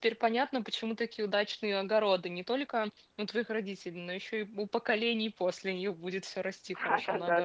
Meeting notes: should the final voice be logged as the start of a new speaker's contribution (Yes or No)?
Yes